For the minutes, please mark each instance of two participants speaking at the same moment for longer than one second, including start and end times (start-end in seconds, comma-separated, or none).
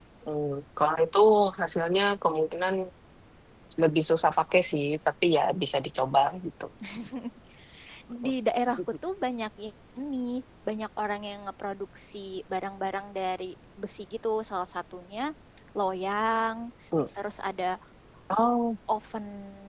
none